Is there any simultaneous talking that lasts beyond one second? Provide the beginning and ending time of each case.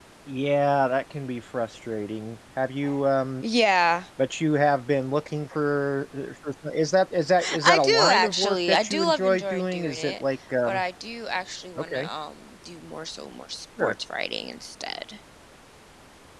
7.6-10.2

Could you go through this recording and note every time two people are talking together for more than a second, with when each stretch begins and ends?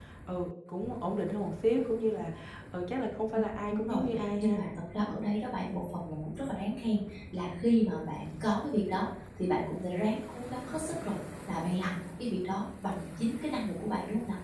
3.3-4.6

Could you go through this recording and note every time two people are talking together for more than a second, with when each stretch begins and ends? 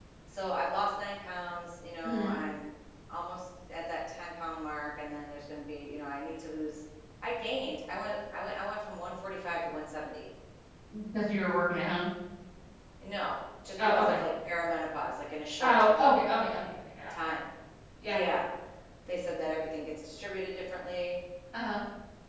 none

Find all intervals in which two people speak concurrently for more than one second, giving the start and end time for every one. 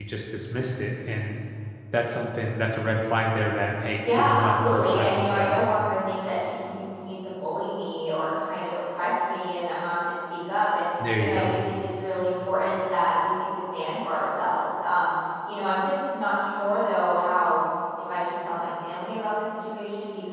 4.2-5.6

